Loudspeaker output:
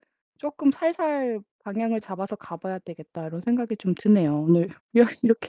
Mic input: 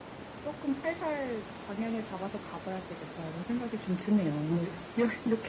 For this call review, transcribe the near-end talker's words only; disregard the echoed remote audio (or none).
none